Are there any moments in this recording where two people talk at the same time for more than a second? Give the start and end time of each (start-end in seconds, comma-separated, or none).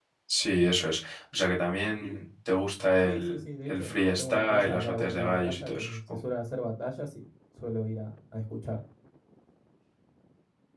3.0-6.2